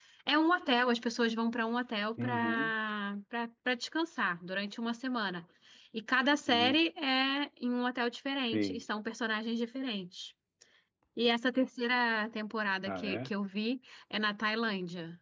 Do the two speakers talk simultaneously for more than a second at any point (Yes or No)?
No